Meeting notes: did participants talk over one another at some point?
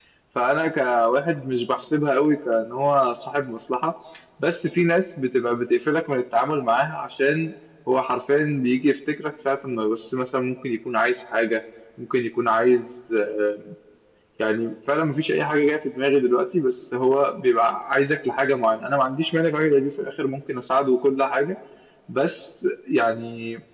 No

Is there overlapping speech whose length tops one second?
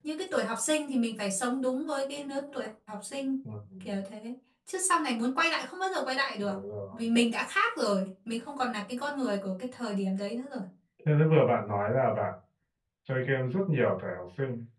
No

